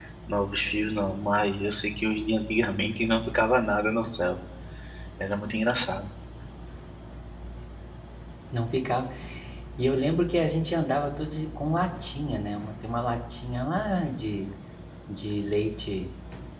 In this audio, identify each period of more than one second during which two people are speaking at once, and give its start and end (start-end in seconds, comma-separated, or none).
none